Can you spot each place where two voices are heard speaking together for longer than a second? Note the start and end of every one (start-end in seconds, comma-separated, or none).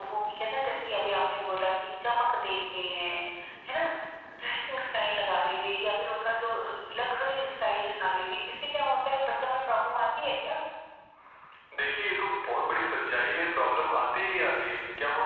none